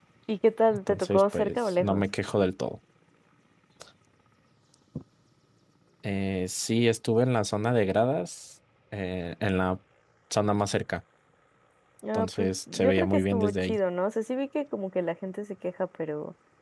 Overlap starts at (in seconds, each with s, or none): 0.7 s